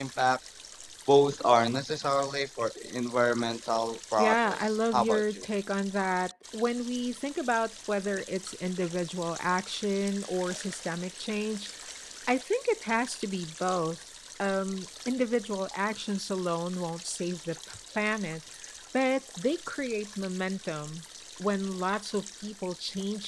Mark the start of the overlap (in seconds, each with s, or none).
4.2 s